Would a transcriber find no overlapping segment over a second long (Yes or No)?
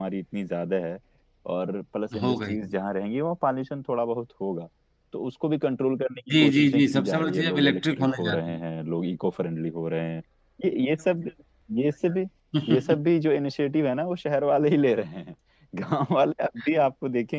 No